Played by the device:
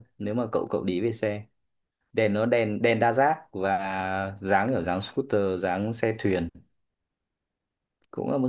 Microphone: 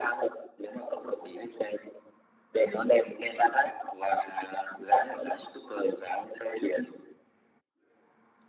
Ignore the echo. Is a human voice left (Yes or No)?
No